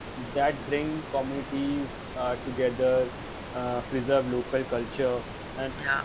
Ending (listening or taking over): listening